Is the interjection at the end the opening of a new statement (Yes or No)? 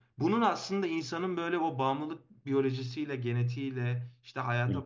No